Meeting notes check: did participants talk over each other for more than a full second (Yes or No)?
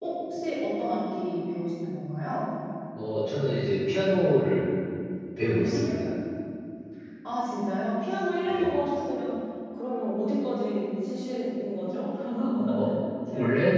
No